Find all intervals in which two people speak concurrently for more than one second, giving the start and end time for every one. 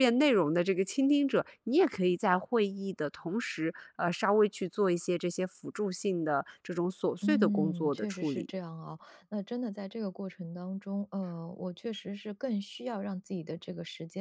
7.2-8.5

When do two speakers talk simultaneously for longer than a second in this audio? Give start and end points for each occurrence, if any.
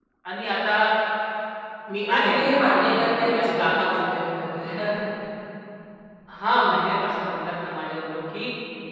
2.1-4.1

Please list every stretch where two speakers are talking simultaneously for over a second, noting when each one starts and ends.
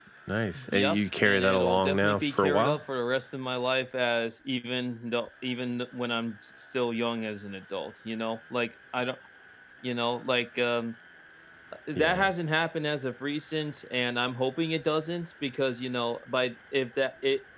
0.7-2.8

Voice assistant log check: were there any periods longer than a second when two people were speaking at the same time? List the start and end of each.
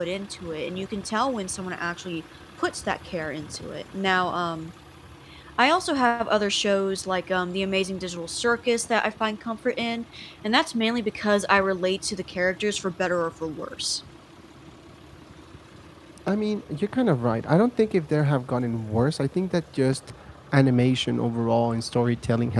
none

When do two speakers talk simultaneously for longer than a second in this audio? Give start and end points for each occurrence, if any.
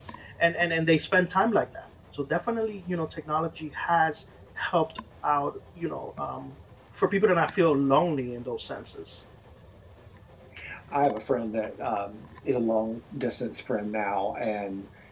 none

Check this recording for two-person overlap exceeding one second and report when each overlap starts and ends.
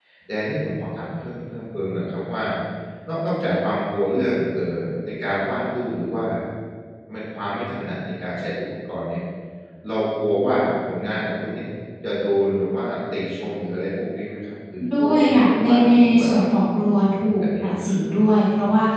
14.9-16.3

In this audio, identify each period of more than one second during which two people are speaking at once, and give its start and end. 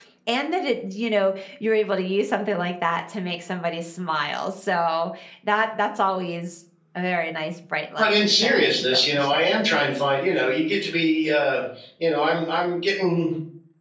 8.0-9.5

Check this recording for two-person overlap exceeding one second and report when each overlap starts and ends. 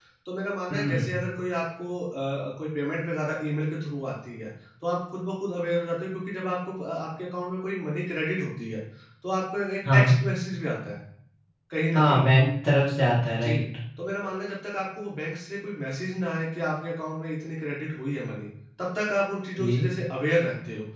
none

